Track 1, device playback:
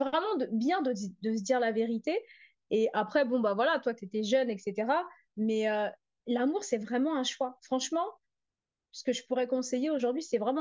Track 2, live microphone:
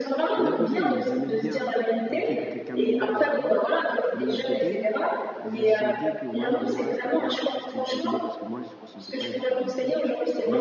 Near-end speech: present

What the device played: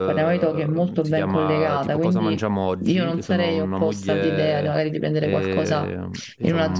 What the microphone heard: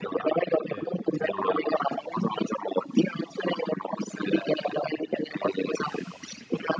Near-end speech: present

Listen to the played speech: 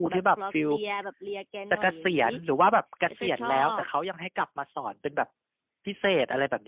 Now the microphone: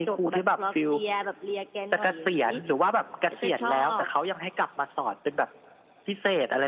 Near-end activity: none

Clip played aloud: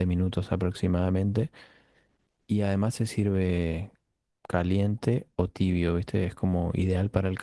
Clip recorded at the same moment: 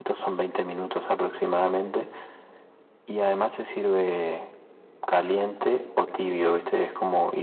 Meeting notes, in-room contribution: none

